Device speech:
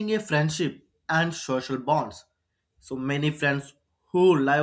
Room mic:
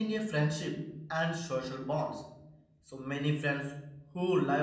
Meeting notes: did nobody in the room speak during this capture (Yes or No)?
Yes